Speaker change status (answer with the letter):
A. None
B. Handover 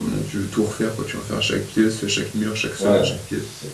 B